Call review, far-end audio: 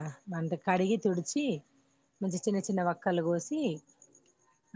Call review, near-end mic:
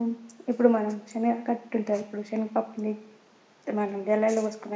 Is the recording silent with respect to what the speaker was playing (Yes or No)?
Yes